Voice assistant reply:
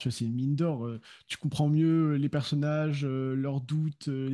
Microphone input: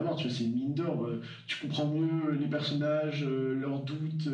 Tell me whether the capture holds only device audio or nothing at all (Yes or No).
Yes